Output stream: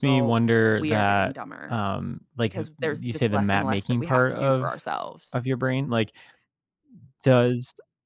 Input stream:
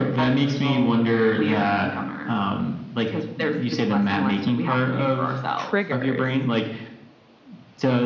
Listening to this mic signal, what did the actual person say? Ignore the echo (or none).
triggers